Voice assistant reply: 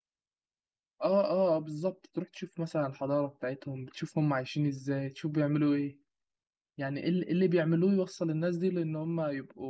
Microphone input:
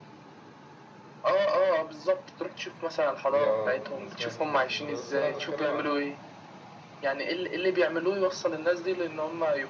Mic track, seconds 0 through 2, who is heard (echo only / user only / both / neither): echo only